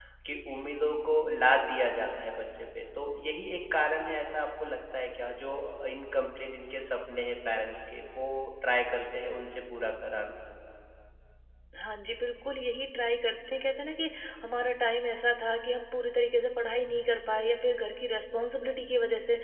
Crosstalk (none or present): none